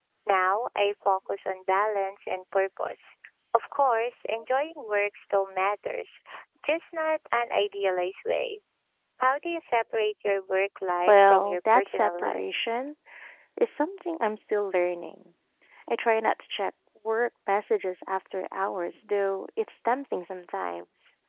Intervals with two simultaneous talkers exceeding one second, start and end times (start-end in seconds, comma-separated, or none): 11.1-12.4